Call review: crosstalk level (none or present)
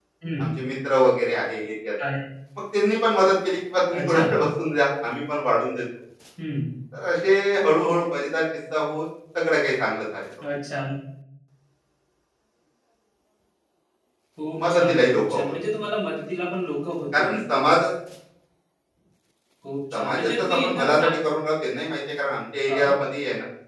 present